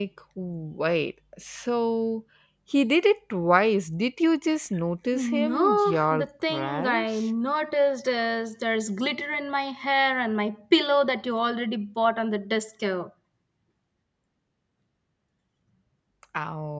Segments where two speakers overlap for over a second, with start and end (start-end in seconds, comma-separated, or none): 5.1-7.3